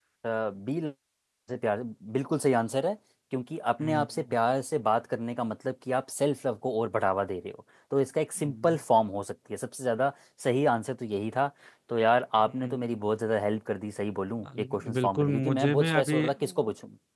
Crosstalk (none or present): present